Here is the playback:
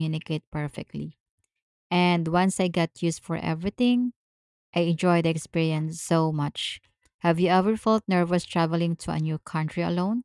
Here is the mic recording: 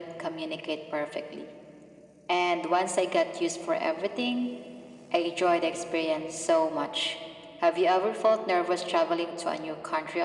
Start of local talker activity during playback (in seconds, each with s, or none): none